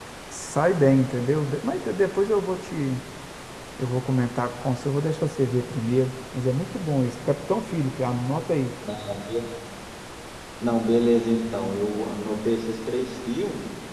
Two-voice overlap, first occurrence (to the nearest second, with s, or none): none